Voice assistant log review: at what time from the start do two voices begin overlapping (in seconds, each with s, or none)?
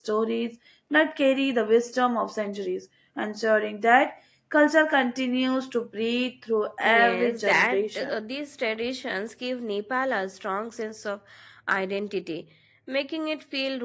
6.8 s